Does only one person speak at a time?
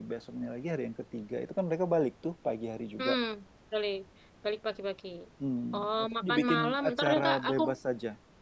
No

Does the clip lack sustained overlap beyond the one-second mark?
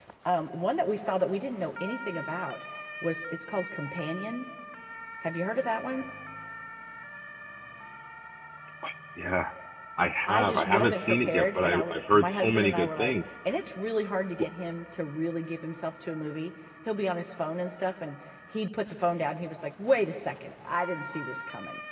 No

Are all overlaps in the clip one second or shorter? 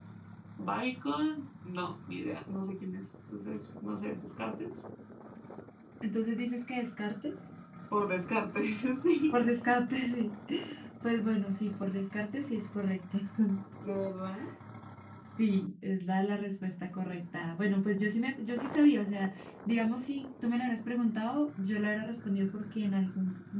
Yes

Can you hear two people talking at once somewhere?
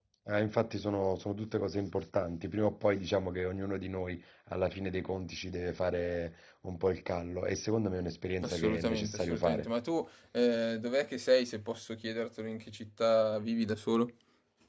Yes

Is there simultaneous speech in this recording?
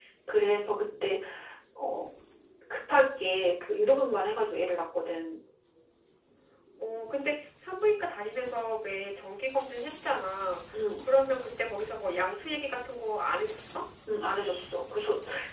No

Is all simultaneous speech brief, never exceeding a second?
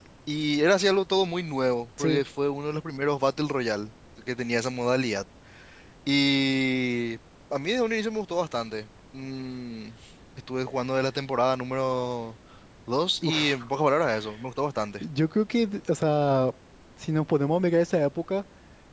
Yes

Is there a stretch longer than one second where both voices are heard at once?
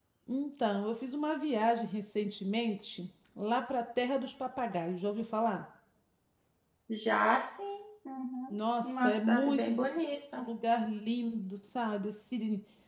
Yes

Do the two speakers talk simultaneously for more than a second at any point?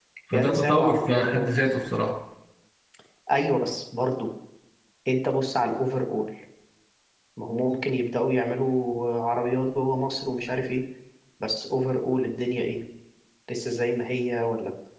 Yes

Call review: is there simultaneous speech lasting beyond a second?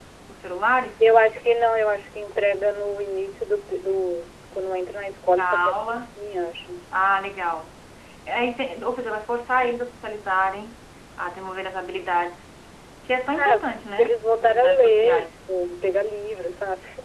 Yes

